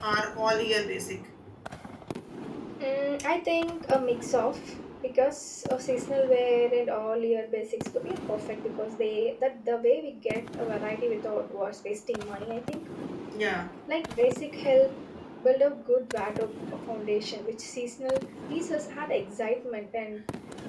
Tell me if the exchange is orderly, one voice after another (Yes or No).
Yes